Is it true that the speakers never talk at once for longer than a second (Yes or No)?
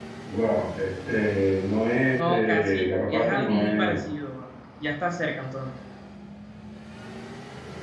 No